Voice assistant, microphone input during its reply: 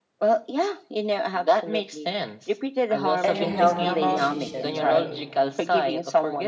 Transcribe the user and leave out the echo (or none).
and a healthy decision, right?